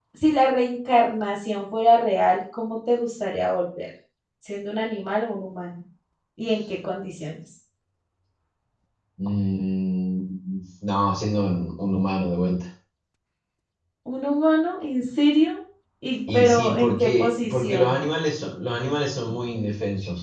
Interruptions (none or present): present